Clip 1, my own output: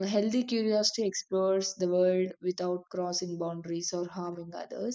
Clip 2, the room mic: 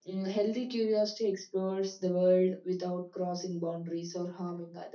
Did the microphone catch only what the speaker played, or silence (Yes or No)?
Yes